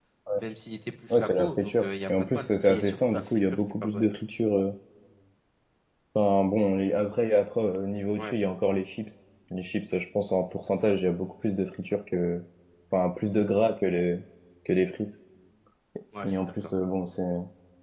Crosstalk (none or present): present